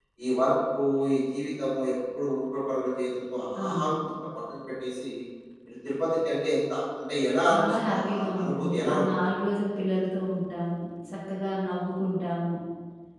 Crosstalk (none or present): present